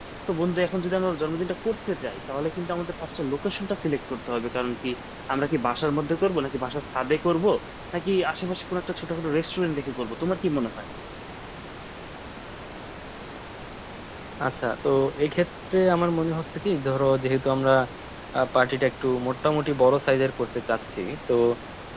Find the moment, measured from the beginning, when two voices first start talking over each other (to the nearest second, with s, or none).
none